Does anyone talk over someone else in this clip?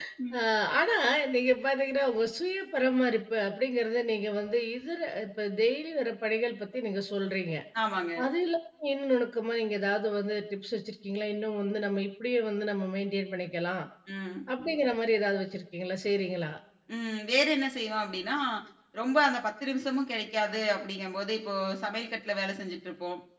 No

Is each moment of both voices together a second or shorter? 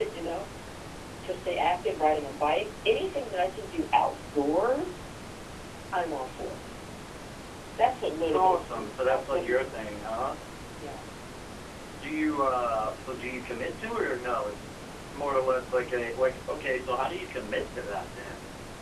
No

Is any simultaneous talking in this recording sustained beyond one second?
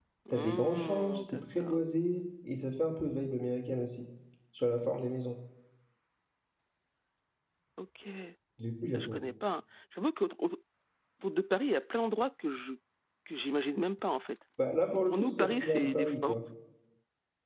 Yes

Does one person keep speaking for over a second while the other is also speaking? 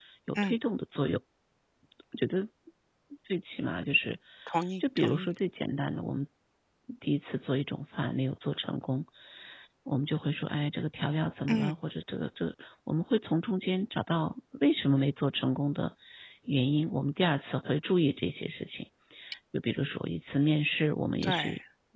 No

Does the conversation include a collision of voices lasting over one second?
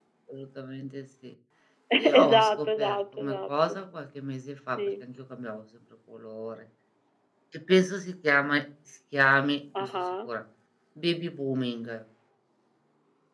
Yes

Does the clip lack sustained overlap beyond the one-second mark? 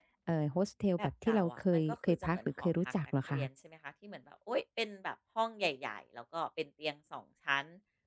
No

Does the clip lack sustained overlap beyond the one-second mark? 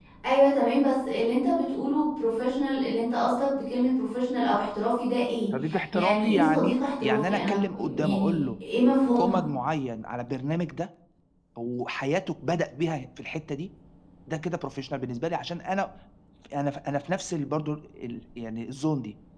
No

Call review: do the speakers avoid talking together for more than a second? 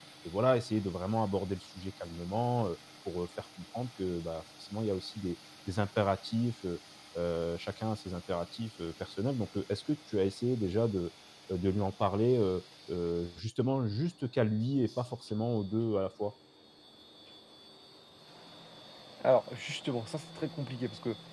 Yes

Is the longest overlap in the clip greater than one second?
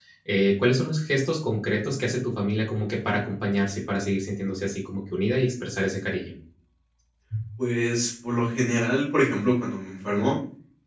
No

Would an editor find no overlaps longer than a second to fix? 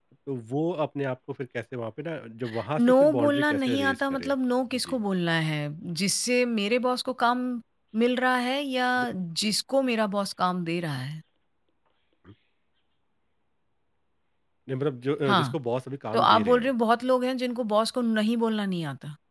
No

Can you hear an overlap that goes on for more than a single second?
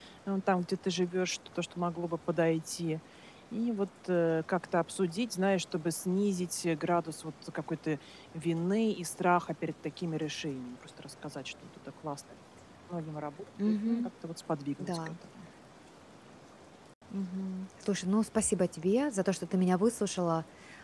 No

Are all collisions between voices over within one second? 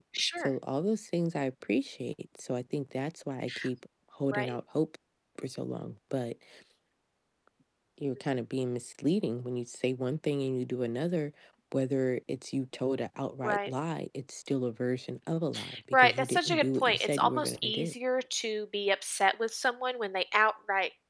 No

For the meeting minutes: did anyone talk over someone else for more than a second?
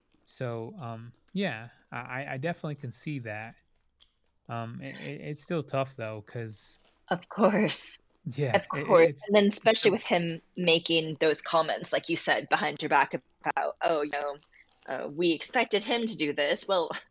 Yes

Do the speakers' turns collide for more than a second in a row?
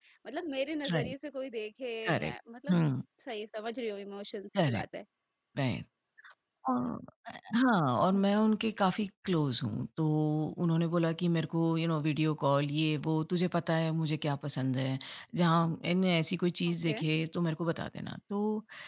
No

